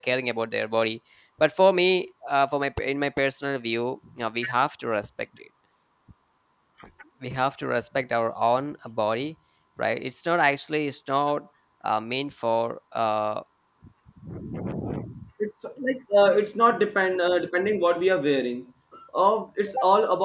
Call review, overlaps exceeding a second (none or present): none